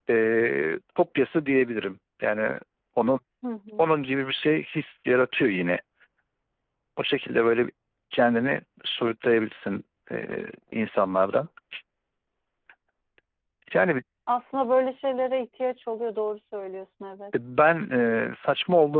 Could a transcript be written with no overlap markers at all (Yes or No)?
Yes